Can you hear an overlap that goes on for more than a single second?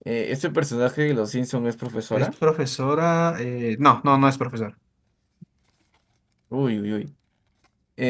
No

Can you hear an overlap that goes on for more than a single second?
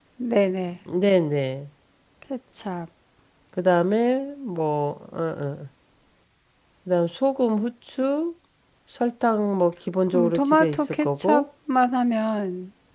Yes, from 10.1 s

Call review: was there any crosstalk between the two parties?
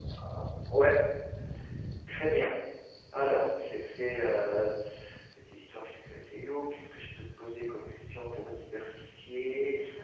No

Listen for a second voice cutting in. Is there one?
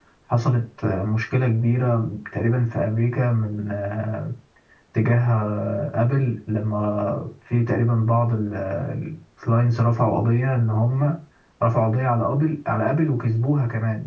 No

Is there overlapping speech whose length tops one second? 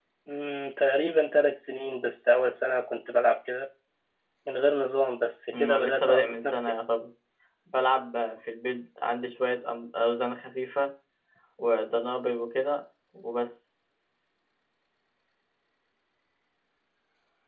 Yes, from 5.5 s

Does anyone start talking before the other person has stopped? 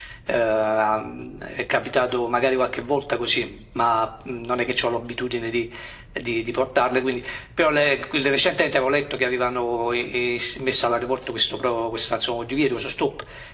No

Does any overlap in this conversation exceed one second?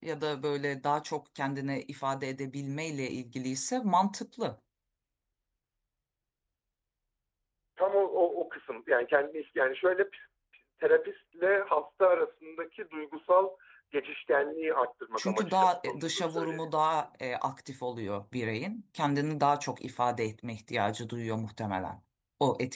Yes, from 15.2 s

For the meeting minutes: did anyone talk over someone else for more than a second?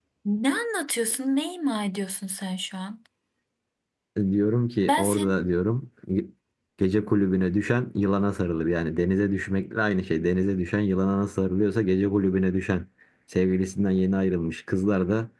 No

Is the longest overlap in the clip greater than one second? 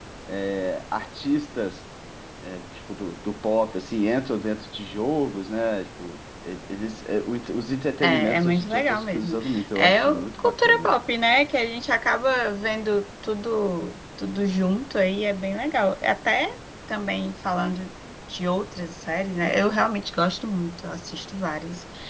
Yes, from 8.0 s

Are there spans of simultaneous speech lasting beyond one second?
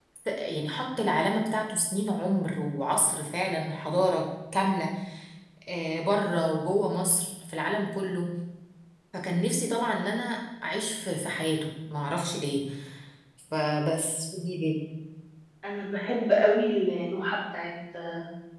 No

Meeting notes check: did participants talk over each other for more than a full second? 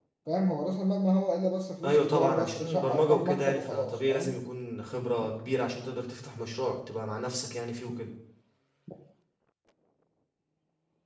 Yes, from 1.8 s

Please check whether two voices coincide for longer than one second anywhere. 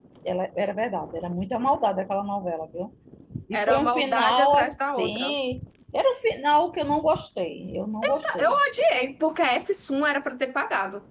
Yes, from 3.5 s

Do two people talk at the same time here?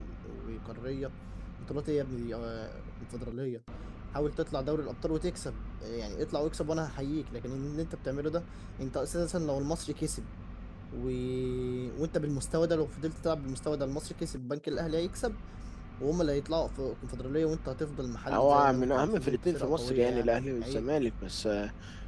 Yes, from 18.3 s

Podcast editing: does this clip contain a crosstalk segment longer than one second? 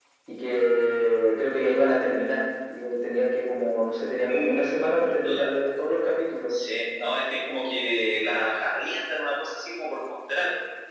Yes, from 4.2 s

